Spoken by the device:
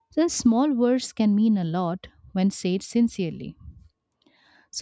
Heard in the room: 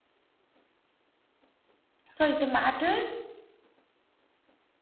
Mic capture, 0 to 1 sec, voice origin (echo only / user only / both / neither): neither